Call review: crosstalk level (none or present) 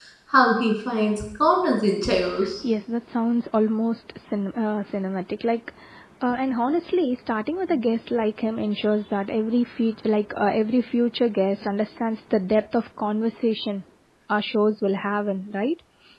none